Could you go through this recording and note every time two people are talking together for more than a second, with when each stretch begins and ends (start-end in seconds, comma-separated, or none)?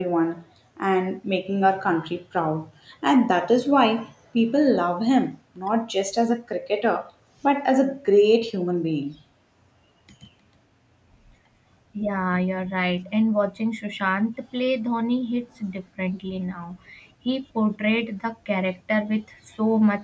none